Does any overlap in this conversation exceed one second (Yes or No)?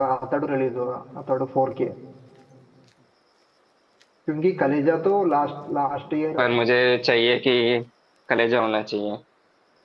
No